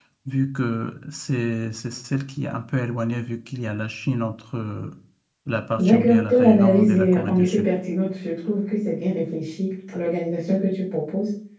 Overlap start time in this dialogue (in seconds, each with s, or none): 5.8 s